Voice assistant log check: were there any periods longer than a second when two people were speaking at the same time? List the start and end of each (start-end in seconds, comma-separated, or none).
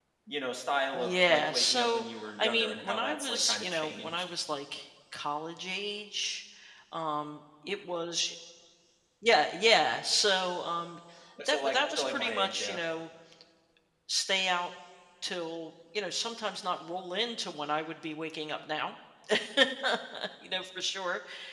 0.9-4.3, 11.5-12.8